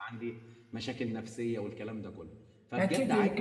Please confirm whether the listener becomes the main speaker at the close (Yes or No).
Yes